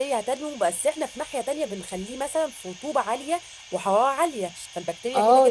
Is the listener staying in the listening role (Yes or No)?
No